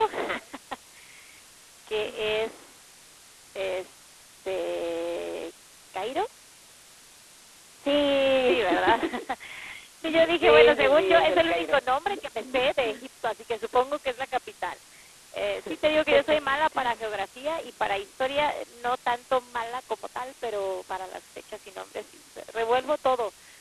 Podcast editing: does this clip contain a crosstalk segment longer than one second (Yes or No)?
Yes